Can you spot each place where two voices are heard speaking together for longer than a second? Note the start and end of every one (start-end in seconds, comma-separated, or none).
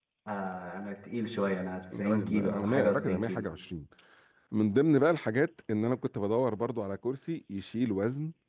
2.0-3.4